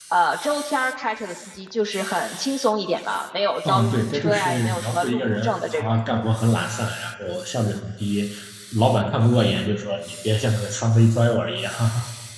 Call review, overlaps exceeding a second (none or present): present